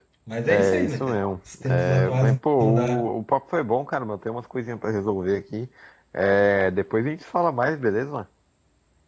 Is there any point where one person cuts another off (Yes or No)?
Yes